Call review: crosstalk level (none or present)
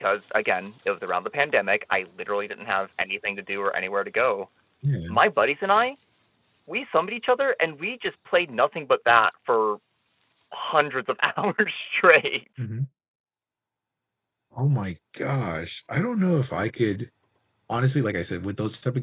none